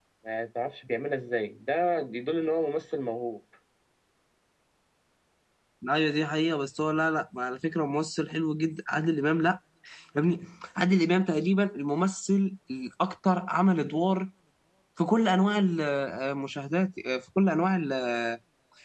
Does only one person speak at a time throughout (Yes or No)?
Yes